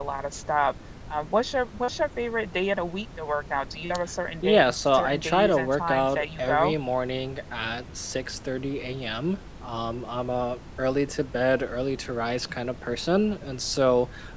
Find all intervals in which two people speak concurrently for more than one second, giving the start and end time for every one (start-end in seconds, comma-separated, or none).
4.4-6.7